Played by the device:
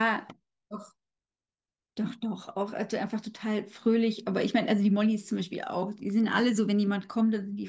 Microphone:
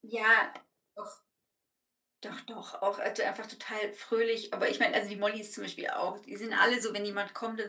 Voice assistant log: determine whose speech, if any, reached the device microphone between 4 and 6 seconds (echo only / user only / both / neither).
echo only